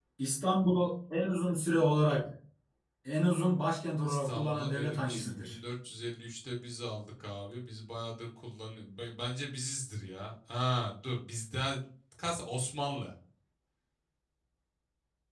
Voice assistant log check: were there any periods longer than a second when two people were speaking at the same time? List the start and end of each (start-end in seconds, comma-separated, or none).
4.0-5.6